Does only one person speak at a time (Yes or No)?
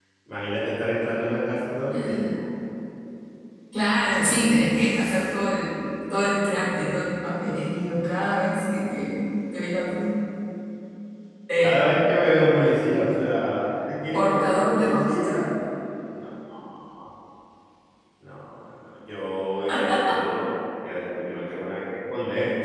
No